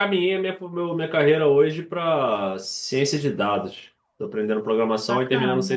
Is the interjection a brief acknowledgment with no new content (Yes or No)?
Yes